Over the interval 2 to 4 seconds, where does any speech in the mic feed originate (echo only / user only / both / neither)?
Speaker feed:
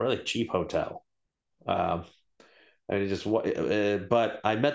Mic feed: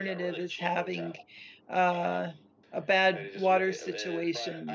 both